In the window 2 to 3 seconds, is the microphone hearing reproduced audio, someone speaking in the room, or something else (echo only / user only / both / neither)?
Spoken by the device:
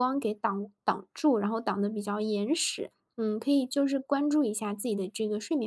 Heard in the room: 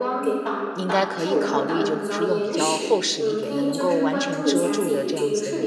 both